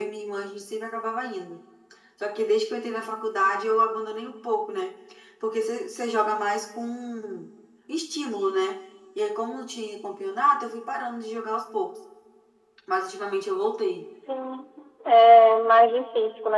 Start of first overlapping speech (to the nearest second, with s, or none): none